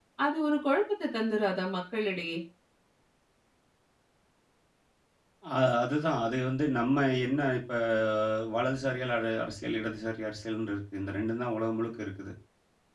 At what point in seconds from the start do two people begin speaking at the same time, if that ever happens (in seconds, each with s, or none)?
none